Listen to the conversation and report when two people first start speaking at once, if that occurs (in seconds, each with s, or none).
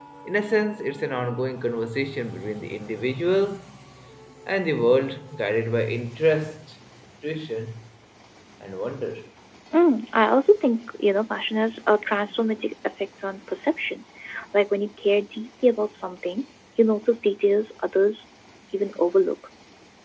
none